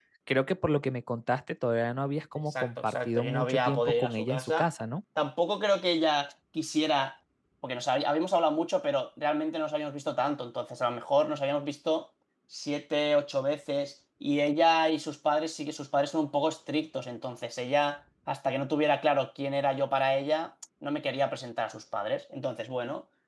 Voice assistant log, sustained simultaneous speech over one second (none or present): present